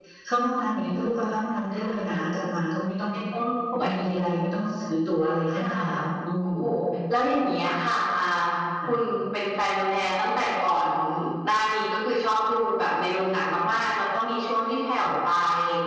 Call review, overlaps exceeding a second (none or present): none